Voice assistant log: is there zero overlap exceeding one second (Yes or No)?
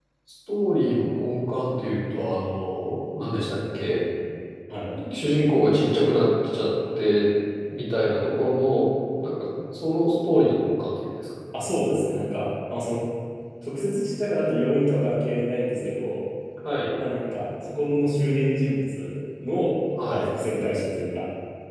Yes